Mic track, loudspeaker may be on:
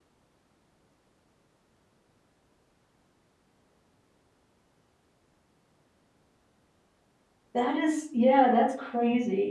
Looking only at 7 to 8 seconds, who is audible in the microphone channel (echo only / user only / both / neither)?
user only